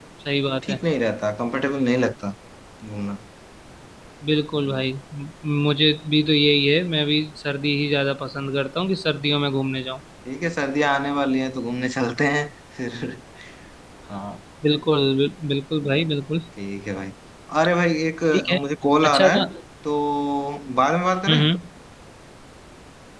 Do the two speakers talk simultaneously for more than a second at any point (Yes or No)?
No